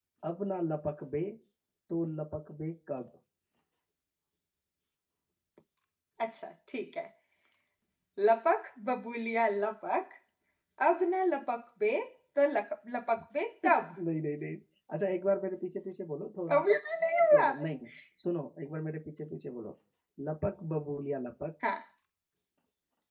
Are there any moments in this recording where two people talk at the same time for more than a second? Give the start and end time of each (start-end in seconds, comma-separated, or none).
none